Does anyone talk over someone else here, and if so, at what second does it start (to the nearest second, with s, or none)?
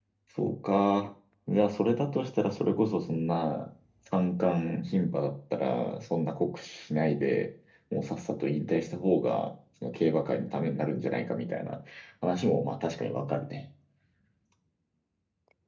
none